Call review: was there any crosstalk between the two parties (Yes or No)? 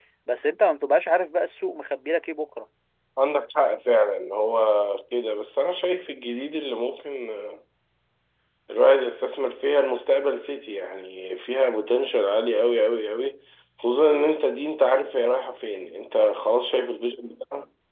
No